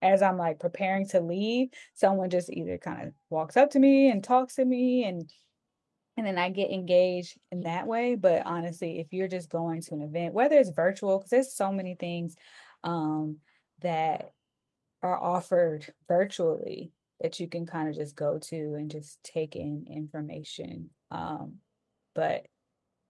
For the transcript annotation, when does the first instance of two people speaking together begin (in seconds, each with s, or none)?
none